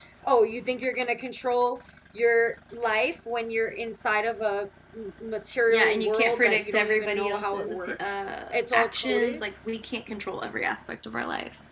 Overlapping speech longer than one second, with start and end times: 5.7-9.4

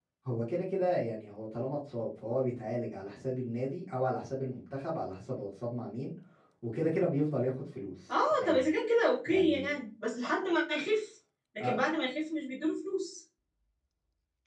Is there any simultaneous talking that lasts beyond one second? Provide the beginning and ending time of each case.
none

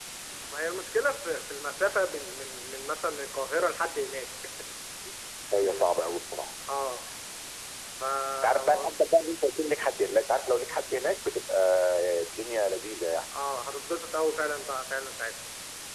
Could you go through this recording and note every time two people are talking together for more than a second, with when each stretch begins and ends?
none

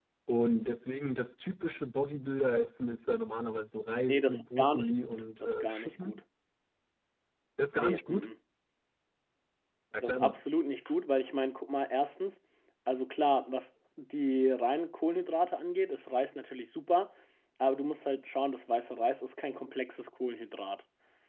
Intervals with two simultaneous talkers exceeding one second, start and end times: 4.1-6.2

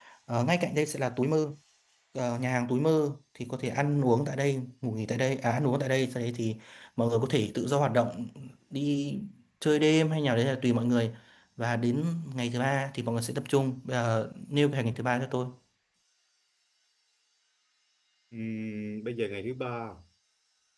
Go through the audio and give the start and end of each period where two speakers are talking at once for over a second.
none

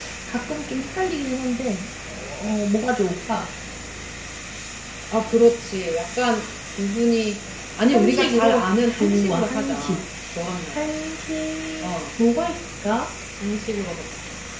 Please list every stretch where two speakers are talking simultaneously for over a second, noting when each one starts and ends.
7.9-10.0

